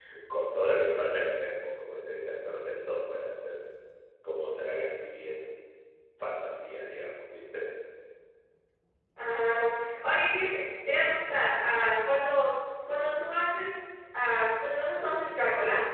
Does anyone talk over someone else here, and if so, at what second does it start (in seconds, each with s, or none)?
none